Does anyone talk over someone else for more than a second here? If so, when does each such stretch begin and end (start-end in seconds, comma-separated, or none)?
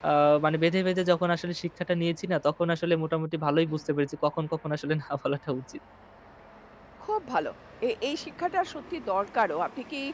none